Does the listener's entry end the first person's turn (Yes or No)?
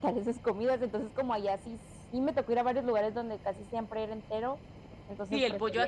Yes